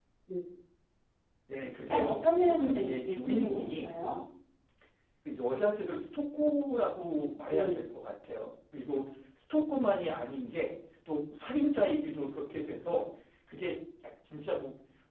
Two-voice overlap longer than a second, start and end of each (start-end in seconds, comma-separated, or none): 1.9-3.9